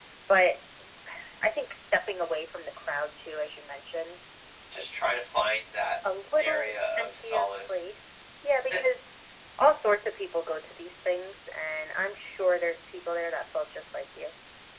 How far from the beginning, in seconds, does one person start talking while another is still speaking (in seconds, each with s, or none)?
6.4 s